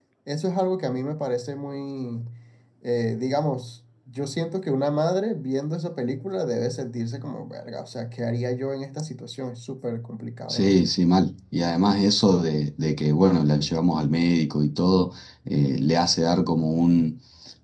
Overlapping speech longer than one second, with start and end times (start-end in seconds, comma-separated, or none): none